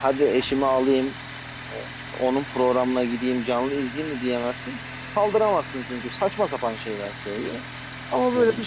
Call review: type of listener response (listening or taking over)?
listening